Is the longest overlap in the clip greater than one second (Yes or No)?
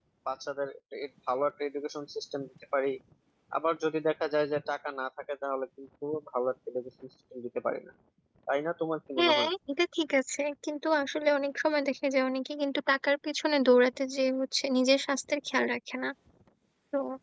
No